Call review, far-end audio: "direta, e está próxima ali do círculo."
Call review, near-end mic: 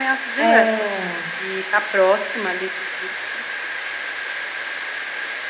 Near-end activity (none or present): present